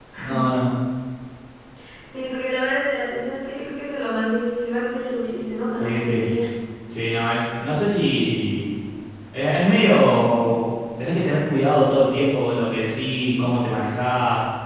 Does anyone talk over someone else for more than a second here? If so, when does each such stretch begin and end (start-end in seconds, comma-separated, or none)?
none